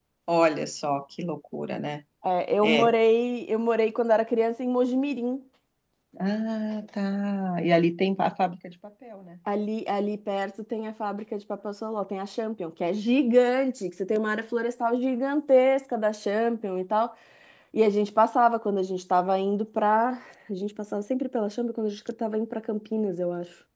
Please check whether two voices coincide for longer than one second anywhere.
No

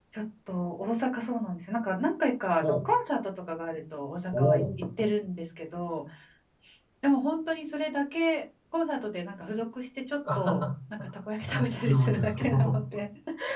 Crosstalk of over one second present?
Yes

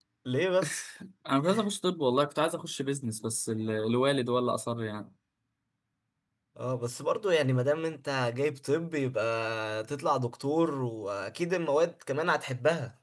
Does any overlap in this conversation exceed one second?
No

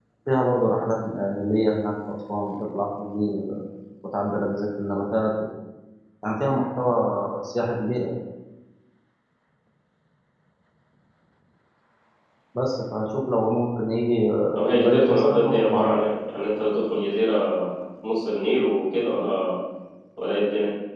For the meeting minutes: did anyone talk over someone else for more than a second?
Yes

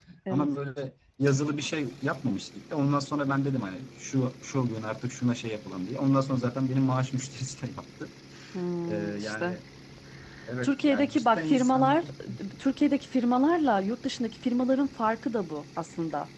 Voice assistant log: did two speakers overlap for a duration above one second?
Yes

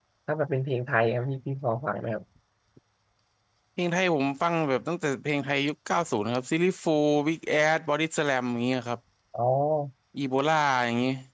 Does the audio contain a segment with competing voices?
No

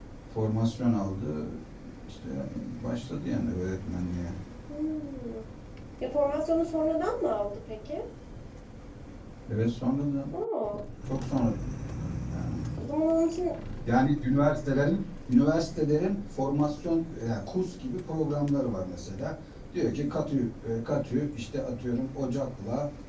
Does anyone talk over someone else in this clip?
No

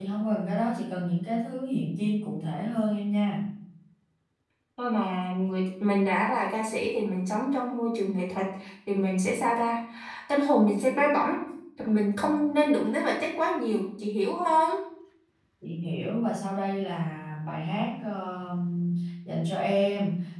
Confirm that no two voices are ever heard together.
Yes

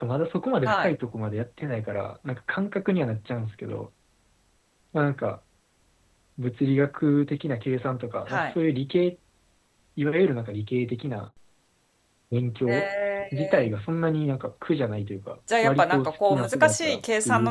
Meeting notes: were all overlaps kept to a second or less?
No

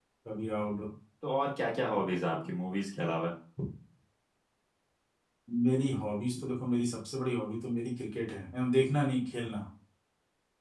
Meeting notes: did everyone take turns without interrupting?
Yes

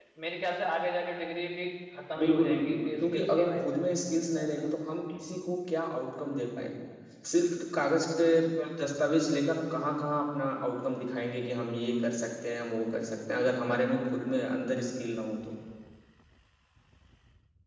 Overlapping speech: Yes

